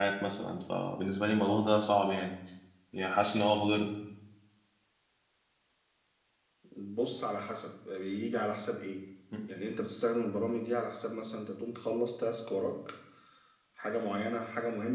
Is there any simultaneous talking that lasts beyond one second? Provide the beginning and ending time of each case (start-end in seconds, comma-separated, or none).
none